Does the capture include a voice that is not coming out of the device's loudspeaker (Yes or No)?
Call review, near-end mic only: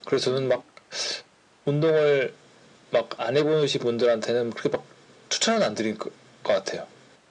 No